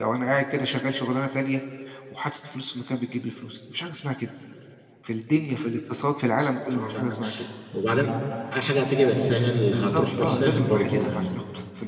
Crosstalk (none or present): present